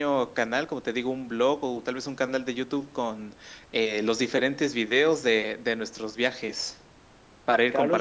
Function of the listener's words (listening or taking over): taking over